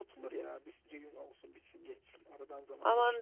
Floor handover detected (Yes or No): Yes